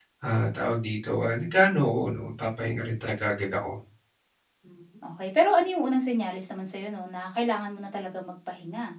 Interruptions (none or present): none